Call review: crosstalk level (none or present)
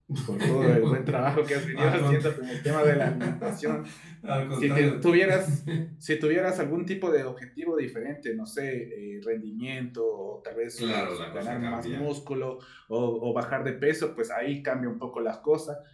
present